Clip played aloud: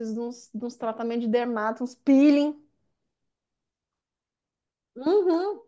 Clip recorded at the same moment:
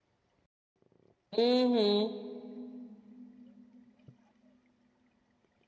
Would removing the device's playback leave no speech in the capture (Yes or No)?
No